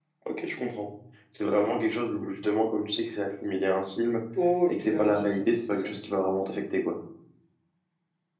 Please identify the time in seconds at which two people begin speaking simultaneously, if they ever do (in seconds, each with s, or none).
4.7 s